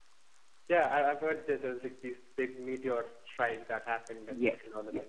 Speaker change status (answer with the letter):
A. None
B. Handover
B